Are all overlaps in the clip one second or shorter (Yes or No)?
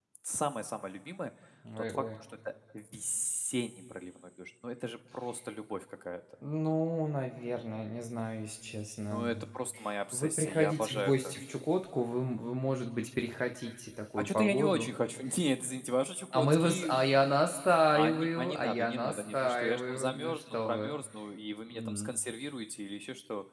No